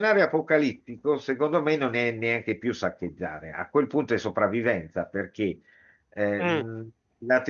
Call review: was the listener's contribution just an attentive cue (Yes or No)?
Yes